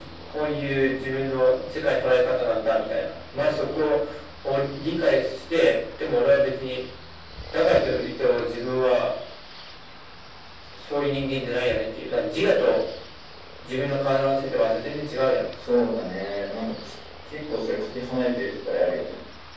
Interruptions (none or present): none